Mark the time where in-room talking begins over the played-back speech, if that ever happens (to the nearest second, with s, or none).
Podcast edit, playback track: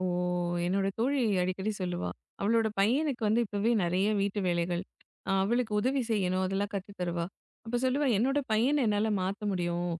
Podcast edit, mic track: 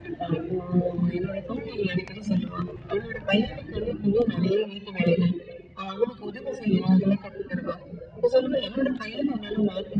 none